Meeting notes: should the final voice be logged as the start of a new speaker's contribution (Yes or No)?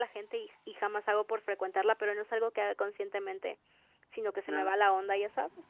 No